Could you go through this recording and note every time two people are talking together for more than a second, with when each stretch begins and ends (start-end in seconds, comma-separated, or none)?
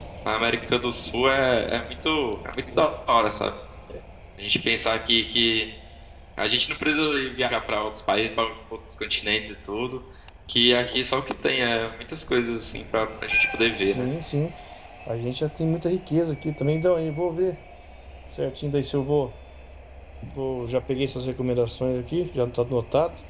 none